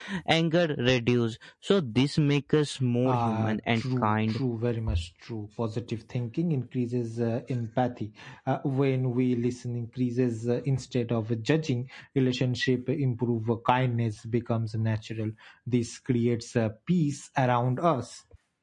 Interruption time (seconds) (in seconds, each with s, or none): 3.0 s